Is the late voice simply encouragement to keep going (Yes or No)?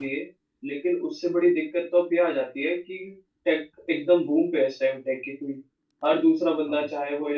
Yes